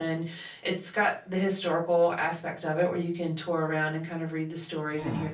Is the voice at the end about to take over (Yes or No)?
No